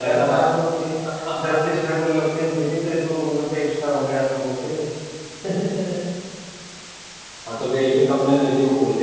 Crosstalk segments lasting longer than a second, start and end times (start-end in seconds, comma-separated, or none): none